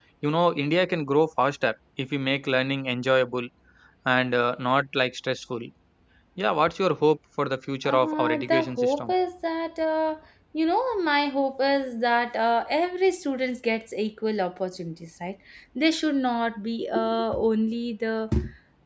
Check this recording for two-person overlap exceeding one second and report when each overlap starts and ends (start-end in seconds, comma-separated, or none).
7.8-9.1